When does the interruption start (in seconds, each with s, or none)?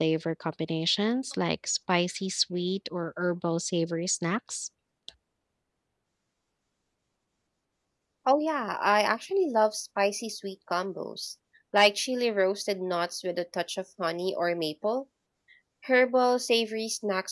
none